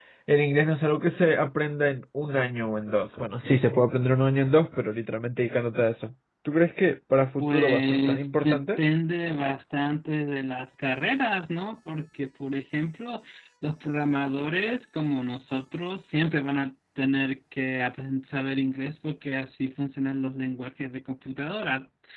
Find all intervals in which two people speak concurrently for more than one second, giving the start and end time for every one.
7.4-8.8

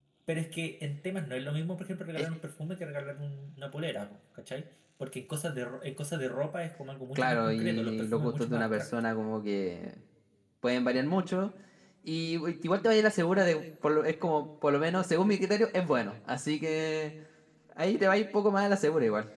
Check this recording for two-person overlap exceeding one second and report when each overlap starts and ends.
7.2-8.9

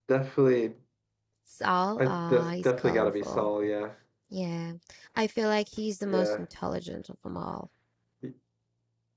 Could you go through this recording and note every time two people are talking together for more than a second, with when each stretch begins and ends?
2.0-3.5

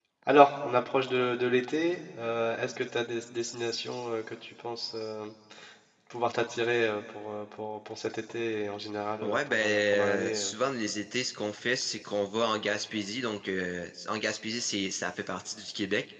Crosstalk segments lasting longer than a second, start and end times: 9.2-10.5

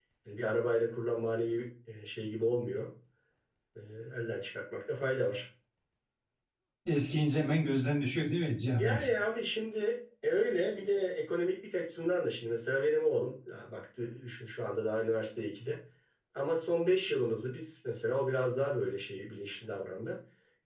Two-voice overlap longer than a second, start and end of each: none

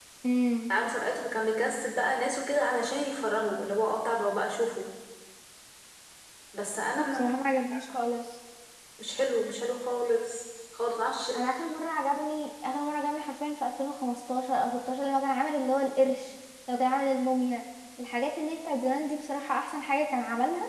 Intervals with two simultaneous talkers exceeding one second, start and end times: none

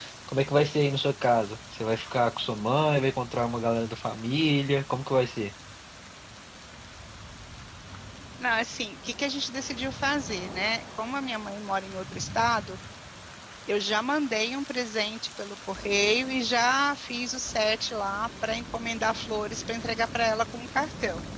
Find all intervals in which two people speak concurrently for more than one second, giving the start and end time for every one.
none

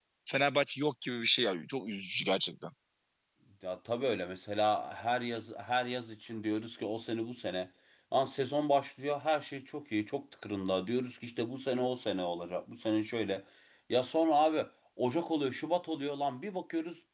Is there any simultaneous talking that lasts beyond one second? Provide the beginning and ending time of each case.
none

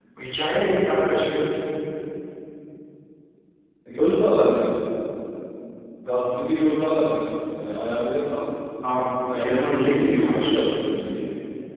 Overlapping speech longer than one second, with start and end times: 9.3-10.6

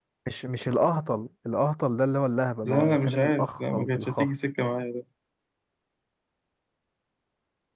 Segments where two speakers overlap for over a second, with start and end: 2.6-4.3

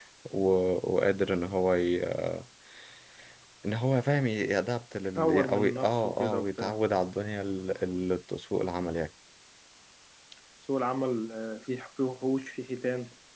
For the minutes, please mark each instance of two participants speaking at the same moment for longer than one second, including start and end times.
5.2-6.8

